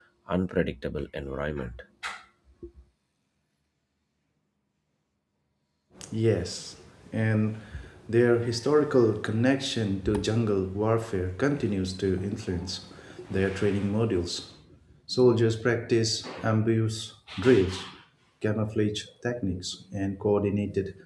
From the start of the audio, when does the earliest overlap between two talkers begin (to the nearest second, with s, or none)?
none